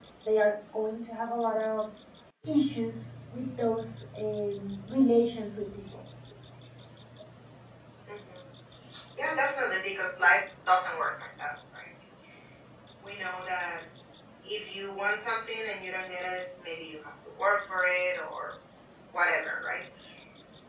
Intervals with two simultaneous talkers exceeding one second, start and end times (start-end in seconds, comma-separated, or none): none